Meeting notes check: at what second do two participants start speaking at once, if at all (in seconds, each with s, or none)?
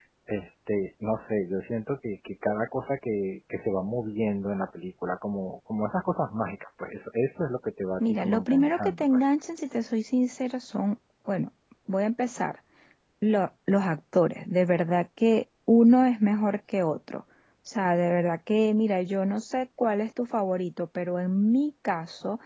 8.0 s